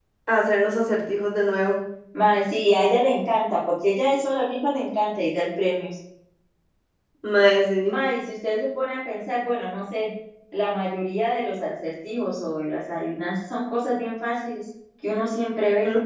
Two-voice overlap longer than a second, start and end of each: none

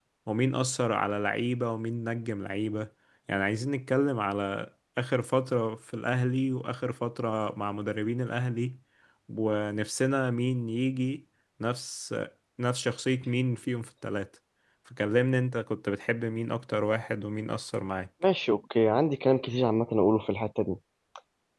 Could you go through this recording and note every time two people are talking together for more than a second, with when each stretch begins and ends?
none

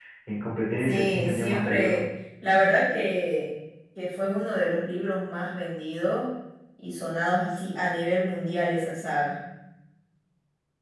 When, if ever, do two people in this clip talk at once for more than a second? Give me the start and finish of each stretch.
0.8-2.0

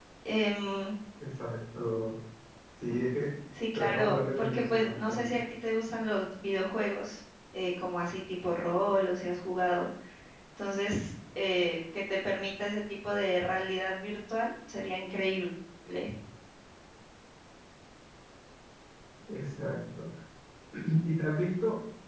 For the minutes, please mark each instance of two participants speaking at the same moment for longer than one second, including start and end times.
3.8-5.4

